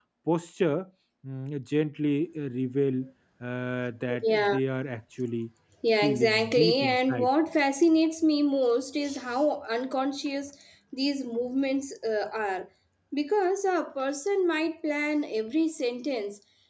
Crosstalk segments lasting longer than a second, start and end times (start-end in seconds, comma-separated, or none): 6.0-7.3